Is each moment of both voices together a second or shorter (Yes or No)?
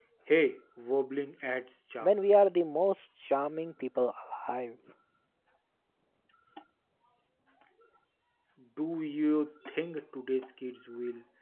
Yes